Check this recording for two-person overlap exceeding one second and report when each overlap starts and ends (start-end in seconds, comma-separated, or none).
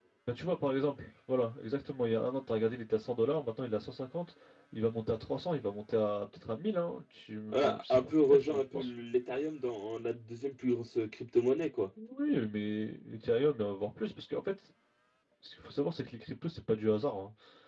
7.5-8.9